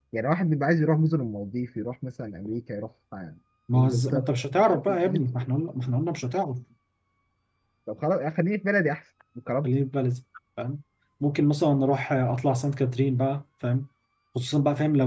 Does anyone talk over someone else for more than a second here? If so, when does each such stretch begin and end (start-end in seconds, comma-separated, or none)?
3.7-5.0